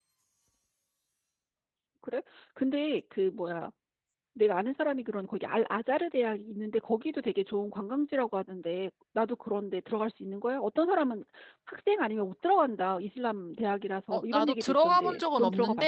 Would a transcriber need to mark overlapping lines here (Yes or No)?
Yes